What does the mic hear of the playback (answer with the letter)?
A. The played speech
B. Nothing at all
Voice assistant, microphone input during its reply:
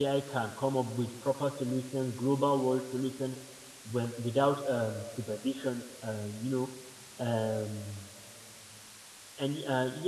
B